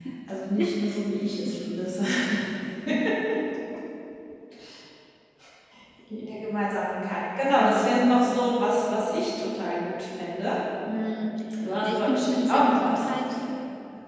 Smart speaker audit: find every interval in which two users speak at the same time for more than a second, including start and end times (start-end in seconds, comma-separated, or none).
11.8-13.1